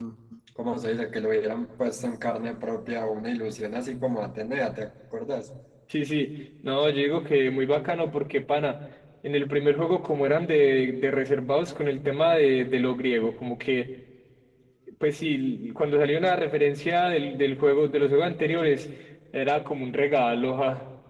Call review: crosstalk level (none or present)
none